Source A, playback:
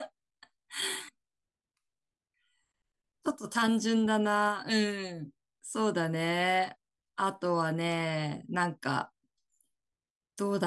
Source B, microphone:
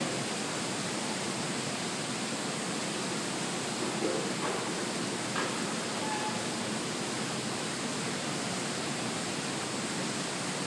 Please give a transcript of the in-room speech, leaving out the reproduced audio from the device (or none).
none